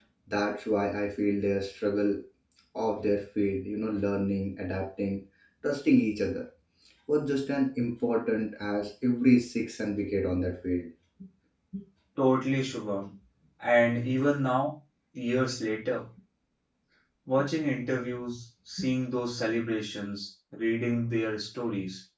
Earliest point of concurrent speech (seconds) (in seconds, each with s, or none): none